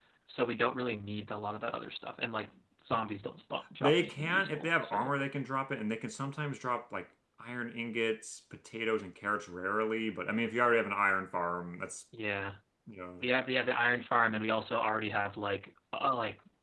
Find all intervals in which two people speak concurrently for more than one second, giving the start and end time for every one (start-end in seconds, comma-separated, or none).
3.8-5.1